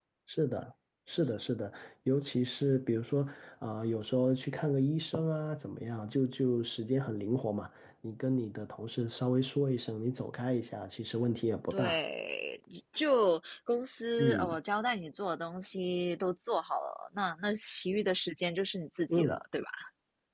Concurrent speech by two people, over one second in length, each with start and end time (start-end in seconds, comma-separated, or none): none